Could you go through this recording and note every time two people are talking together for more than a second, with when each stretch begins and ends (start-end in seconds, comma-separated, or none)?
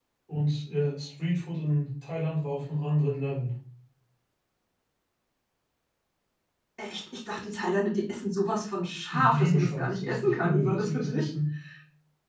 9.1-11.3